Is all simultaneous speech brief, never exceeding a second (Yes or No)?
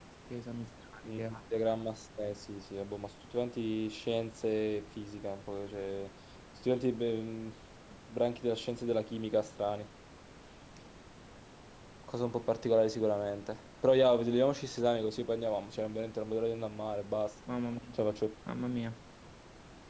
Yes